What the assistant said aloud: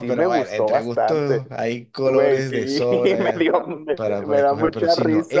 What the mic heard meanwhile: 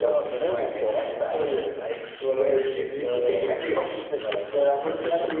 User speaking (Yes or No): No